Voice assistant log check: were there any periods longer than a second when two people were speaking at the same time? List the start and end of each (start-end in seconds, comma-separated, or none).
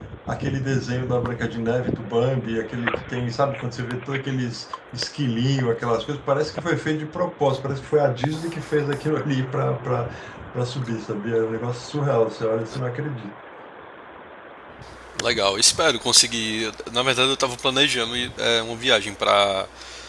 none